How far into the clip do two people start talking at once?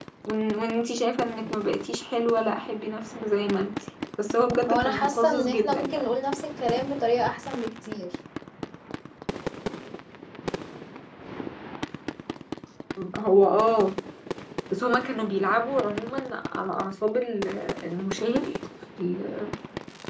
5 s

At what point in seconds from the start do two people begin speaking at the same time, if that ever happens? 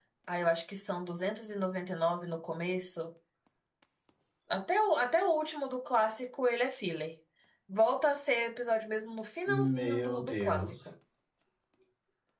9 s

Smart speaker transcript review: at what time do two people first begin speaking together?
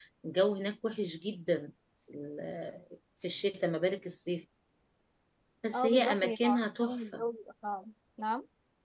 6 s

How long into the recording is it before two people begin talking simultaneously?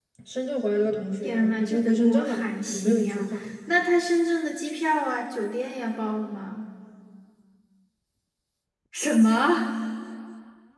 1 s

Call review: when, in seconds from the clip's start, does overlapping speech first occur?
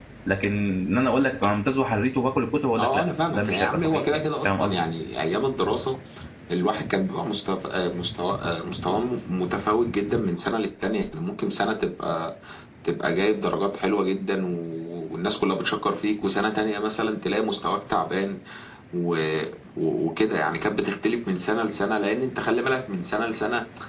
3 s

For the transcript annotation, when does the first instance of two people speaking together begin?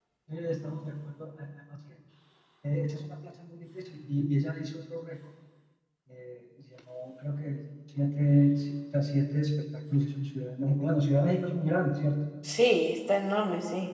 none

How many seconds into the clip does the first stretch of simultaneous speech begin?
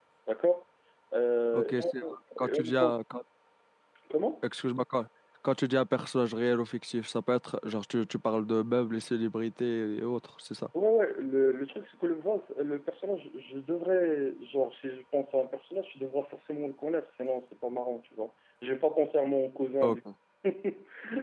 2 s

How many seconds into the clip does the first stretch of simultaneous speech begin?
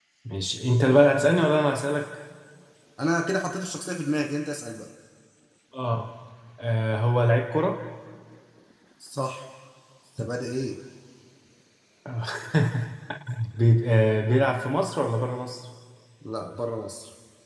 none

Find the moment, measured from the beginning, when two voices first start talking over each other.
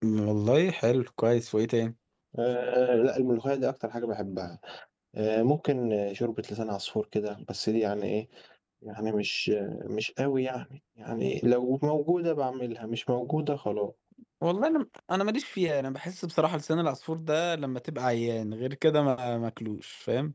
none

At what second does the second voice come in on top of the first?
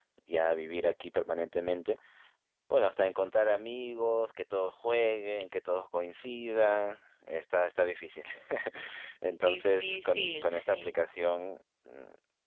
9 s

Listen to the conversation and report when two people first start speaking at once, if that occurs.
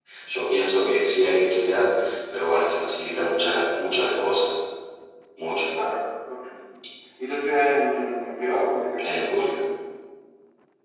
none

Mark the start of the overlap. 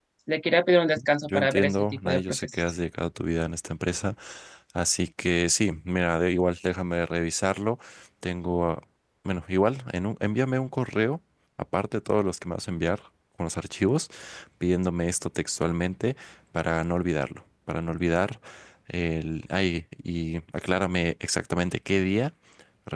1 s

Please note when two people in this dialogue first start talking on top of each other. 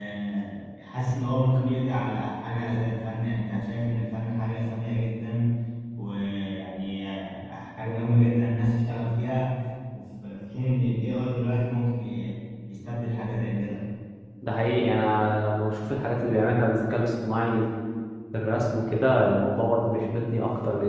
none

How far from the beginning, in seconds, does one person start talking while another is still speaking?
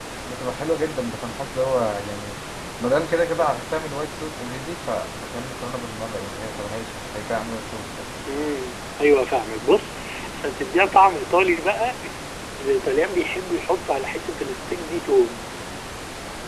none

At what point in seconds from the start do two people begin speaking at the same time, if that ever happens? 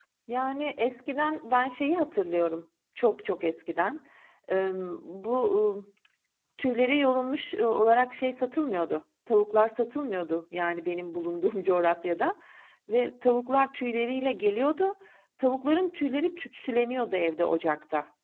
none

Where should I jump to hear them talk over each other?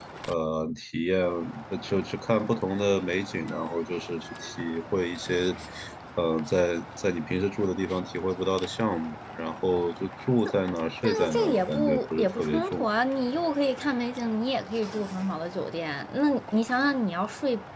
11 s

